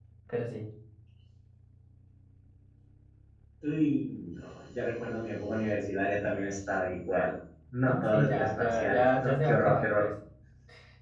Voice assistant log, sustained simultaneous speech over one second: present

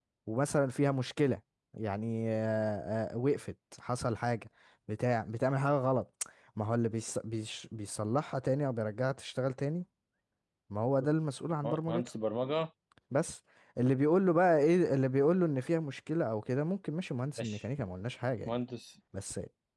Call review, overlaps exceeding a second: none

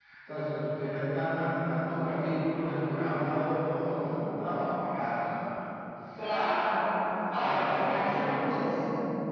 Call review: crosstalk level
present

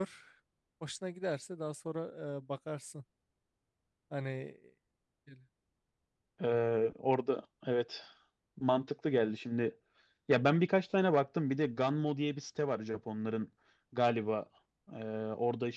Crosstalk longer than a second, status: none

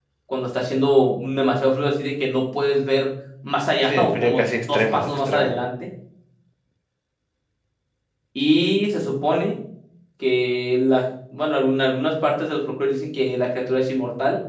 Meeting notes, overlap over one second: present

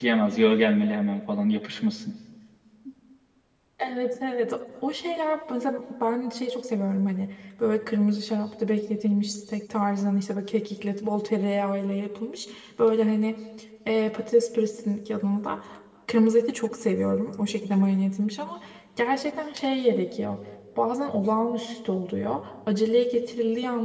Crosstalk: none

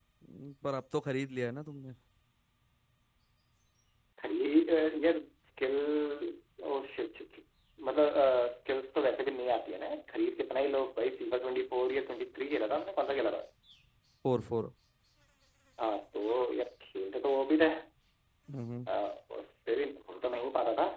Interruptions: none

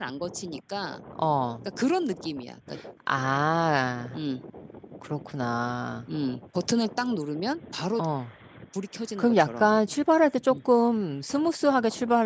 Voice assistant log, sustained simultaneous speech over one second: none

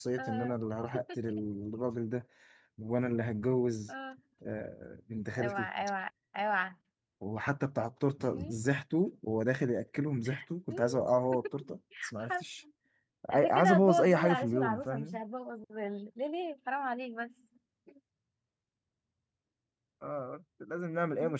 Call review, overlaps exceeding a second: present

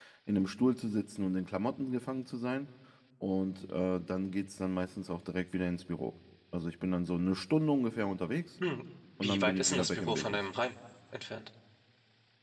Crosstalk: present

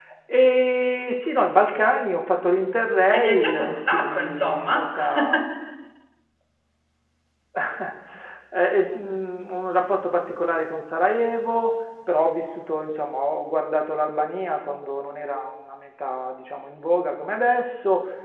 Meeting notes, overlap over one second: present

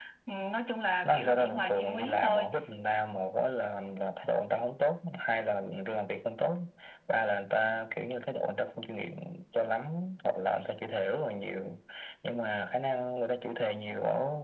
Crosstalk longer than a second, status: present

